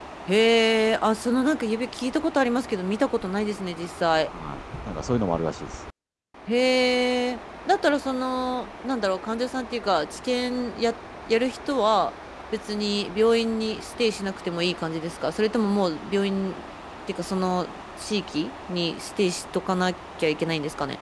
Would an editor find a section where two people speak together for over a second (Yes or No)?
No